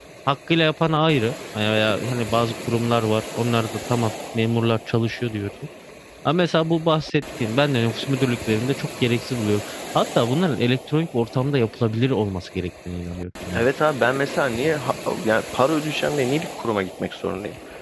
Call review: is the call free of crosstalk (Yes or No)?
Yes